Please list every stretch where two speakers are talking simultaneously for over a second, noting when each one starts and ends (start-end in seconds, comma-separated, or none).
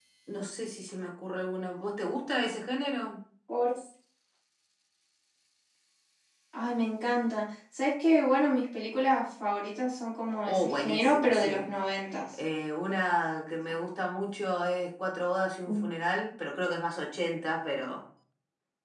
10.4-11.7